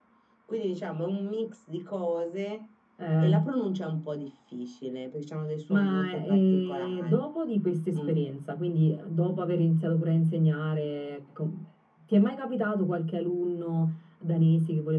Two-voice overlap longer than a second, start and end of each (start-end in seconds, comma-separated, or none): 5.7-7.2